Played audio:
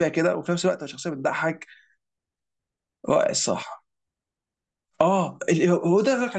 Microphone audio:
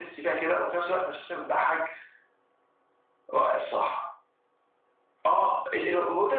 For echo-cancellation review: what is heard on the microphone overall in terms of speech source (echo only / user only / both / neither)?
echo only